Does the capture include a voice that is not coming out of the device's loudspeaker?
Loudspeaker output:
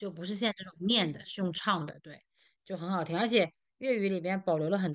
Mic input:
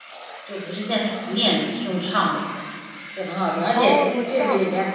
Yes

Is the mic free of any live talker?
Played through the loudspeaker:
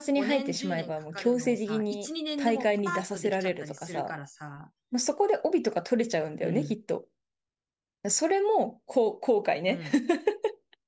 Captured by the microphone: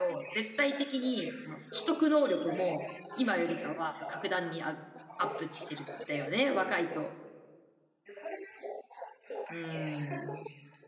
No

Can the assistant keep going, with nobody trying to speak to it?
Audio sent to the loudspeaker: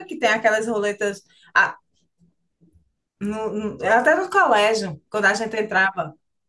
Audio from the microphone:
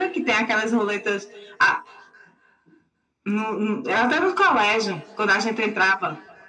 Yes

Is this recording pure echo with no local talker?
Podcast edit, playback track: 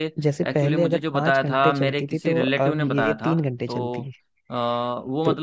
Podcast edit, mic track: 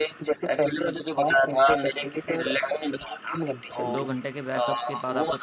No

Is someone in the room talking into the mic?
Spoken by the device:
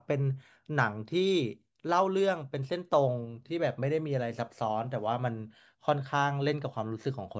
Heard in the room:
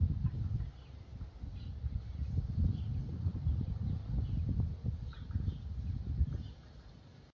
No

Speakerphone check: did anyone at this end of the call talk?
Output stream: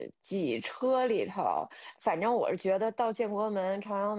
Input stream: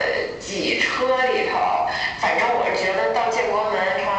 No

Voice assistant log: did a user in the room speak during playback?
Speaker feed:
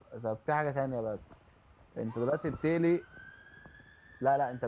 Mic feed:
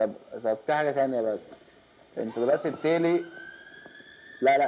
No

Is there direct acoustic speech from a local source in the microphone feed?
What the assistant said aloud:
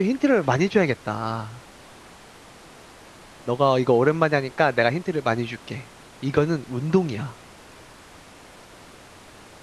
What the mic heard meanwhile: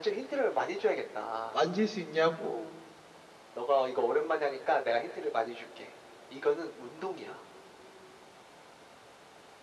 Yes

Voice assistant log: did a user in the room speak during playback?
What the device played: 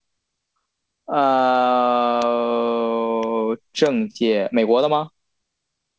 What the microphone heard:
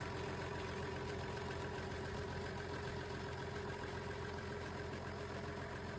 No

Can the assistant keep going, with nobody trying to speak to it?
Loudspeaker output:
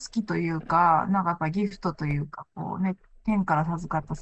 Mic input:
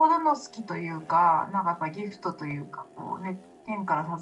Yes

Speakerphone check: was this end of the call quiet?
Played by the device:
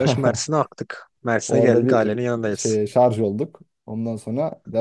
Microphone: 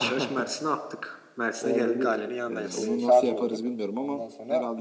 No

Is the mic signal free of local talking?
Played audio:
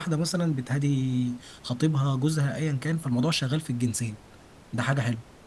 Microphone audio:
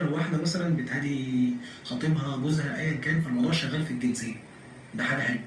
Yes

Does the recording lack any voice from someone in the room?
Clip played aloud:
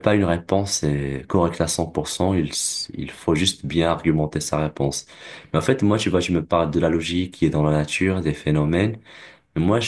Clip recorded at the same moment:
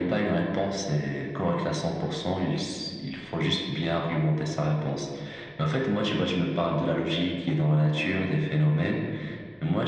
Yes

